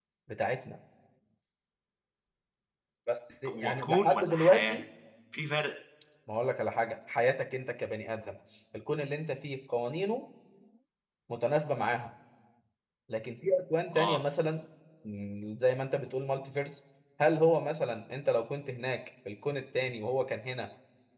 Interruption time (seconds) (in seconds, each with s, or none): 3.5 s